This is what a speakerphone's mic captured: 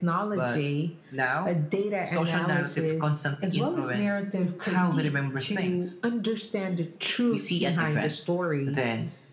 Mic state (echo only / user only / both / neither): echo only